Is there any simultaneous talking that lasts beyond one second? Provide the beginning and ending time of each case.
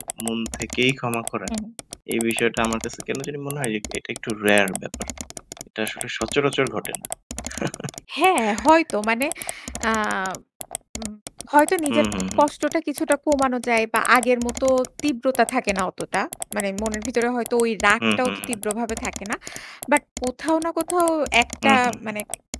none

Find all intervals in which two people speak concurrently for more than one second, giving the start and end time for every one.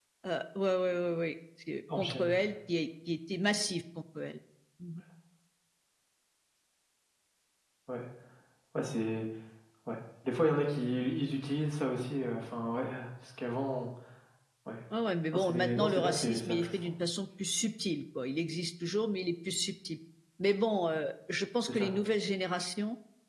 15.3-16.8

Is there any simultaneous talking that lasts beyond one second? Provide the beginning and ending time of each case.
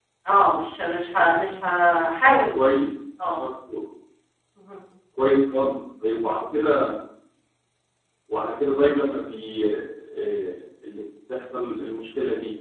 none

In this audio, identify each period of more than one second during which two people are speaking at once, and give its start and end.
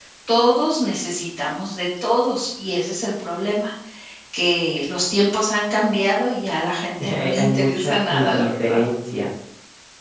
7.0-8.8

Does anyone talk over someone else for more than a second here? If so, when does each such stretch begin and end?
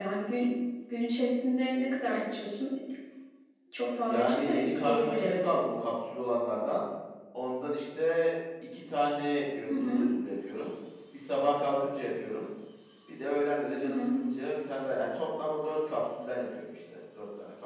4.0-5.5

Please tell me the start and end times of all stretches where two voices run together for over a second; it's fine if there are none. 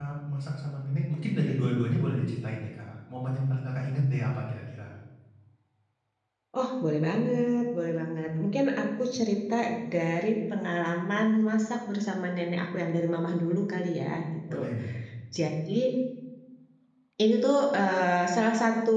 none

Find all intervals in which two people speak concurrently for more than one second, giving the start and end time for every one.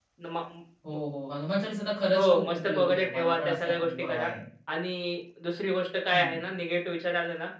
2.2-4.3

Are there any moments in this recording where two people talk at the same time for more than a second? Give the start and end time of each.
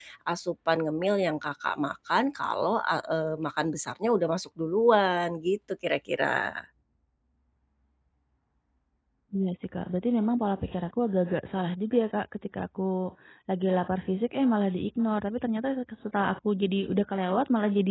none

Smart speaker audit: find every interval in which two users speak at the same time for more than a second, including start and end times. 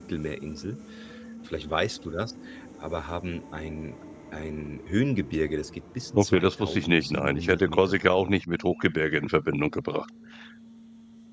6.2-8.1

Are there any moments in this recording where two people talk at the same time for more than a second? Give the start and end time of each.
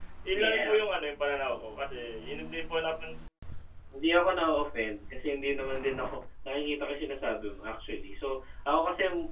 none

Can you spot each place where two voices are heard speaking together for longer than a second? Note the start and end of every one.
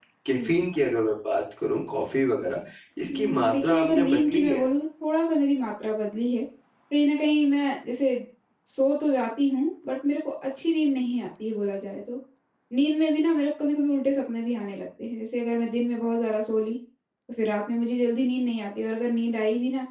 3.1-4.6

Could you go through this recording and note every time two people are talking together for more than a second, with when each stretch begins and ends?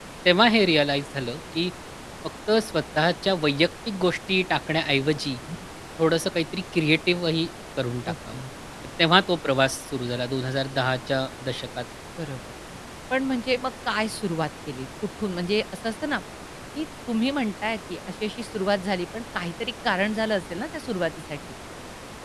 none

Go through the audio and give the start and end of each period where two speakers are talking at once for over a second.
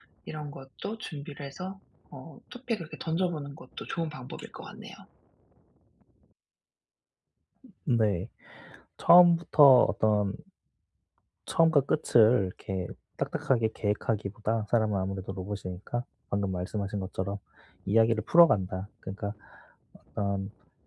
none

